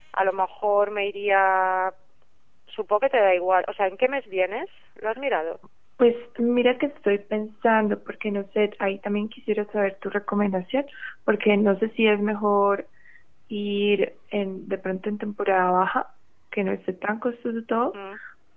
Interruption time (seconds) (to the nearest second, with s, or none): none